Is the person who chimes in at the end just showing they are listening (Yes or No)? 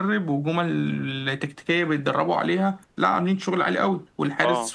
Yes